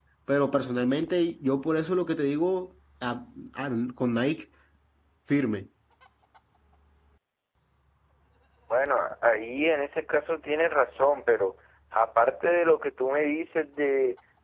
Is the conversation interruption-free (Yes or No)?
Yes